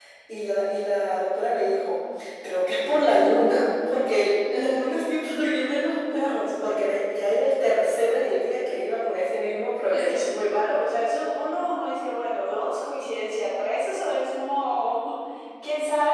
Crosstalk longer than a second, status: none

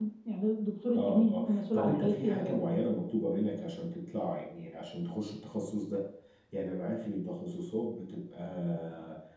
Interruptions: present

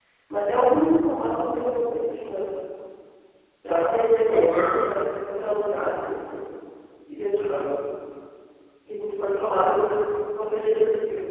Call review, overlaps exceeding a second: present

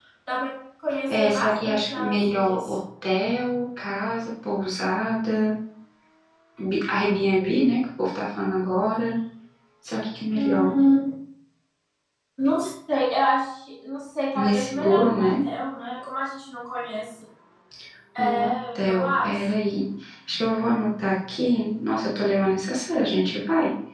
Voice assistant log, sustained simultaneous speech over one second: present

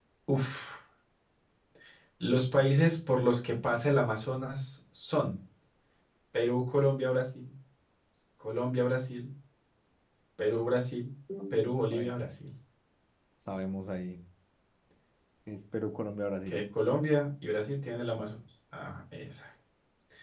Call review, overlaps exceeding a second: none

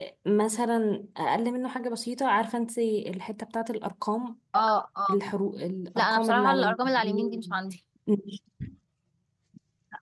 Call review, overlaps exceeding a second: present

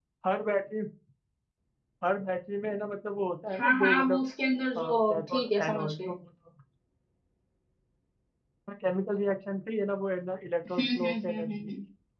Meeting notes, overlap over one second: present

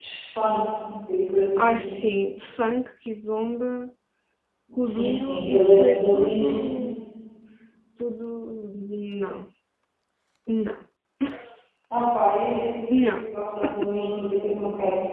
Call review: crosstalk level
present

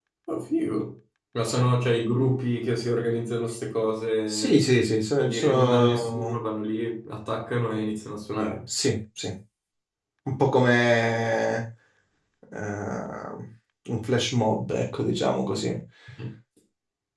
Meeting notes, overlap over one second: present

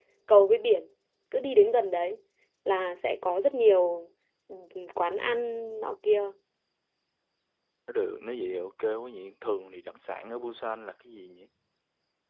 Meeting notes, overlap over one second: none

